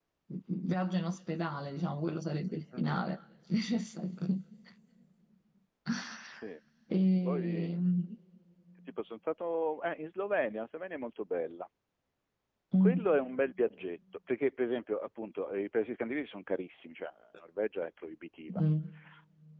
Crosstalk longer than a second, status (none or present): none